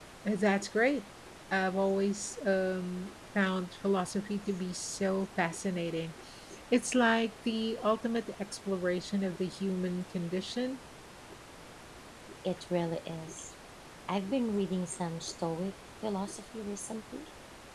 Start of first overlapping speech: none

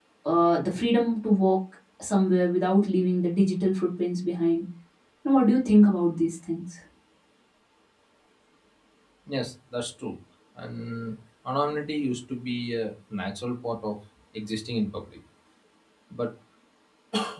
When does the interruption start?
none

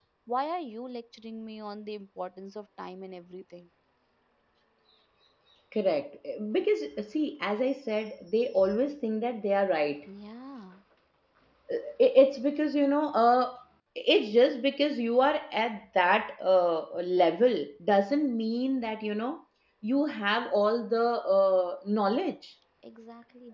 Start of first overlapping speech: none

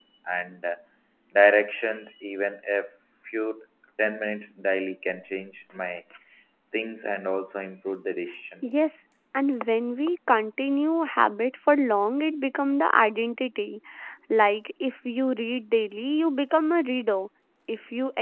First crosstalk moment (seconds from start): none

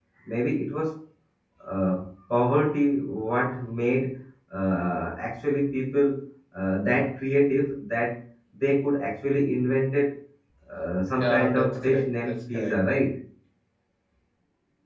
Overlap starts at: 11 s

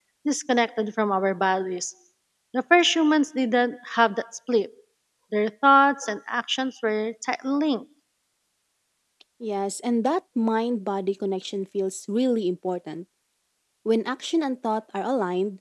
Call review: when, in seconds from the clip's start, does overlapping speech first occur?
none

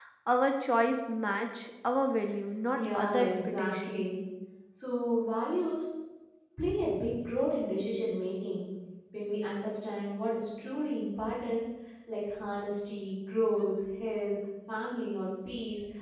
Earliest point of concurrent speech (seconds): 3 s

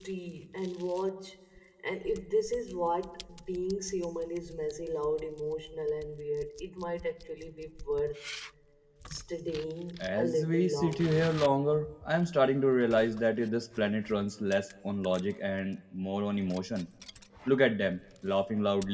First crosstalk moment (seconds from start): 10 s

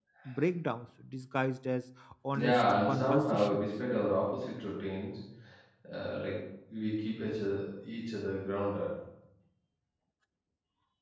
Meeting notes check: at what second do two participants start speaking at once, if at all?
2 s

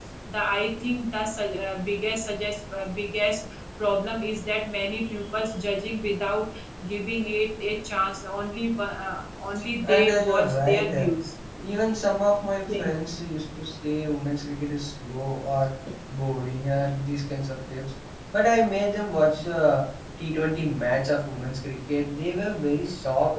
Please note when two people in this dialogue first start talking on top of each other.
10 s

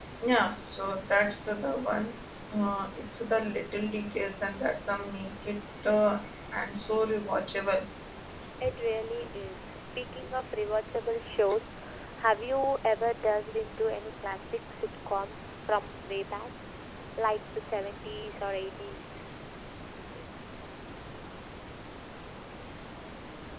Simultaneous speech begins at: none

